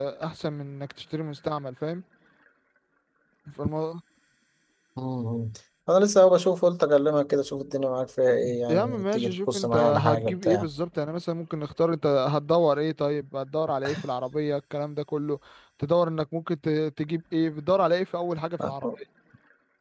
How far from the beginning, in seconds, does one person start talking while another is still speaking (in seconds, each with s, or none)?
8.7 s